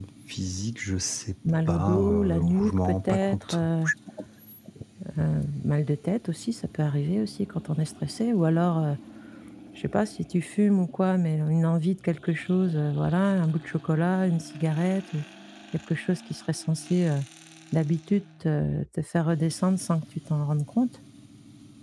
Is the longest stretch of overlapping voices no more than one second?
No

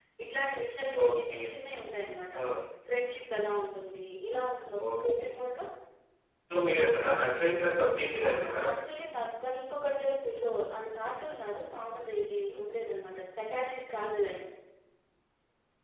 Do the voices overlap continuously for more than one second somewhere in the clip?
No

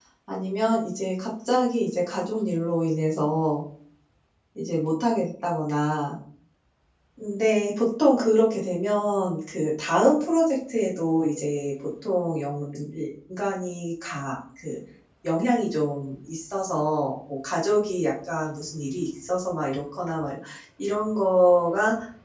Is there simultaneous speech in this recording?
No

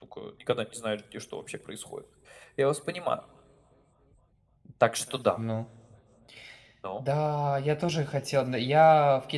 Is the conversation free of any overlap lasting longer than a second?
Yes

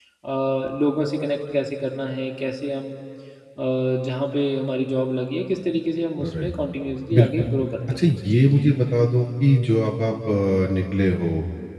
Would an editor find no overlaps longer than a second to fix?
Yes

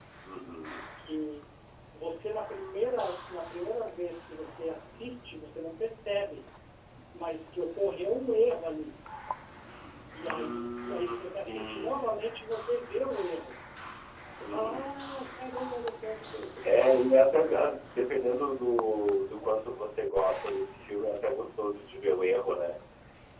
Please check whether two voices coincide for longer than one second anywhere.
Yes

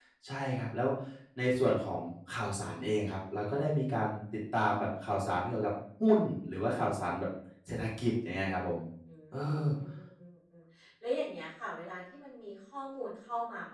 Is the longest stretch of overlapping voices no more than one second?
Yes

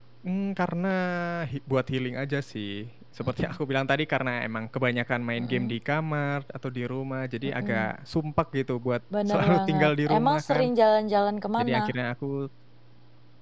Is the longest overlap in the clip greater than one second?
Yes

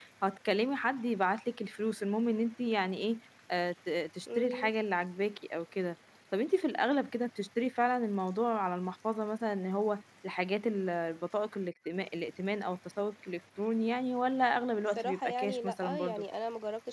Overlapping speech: Yes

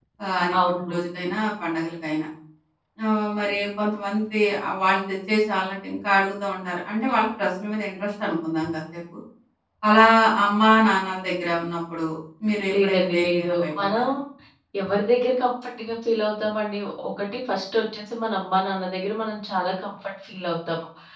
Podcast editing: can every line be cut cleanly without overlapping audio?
No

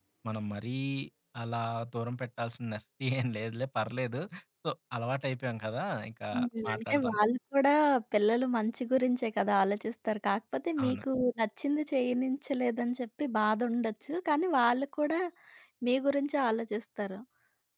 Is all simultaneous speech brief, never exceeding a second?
Yes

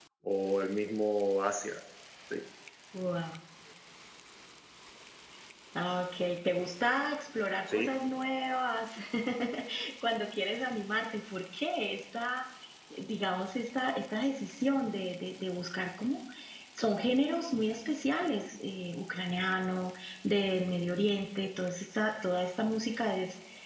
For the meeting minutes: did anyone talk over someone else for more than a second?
No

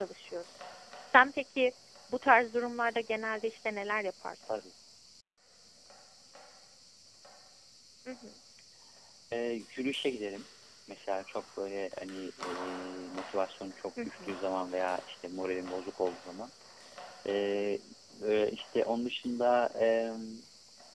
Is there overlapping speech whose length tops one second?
No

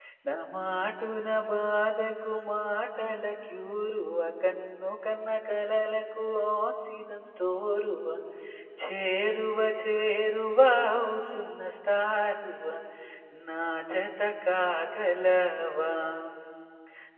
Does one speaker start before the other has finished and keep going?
No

